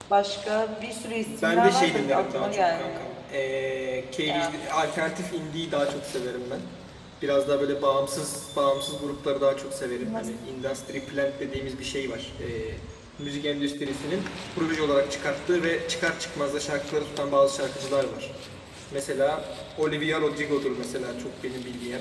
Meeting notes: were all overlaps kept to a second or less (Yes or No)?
No